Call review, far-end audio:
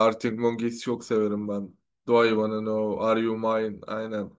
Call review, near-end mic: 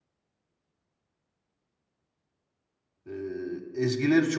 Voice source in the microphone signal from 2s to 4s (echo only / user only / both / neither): user only